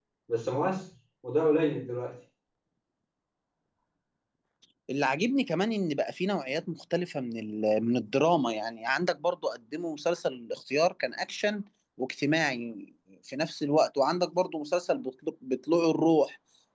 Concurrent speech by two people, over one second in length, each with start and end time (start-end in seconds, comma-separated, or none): none